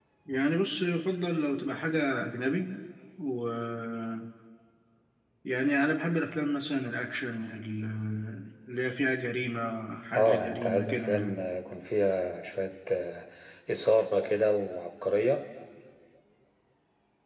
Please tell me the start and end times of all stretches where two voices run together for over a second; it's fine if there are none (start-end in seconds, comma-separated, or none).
10.1-11.4